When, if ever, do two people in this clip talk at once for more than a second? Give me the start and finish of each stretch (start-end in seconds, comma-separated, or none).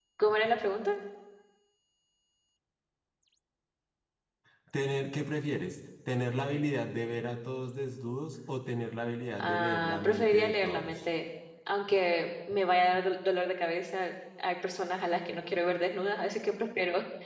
9.4-11.0